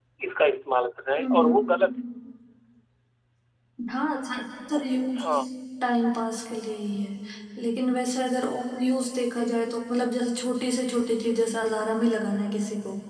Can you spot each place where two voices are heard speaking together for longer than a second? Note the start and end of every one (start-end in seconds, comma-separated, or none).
none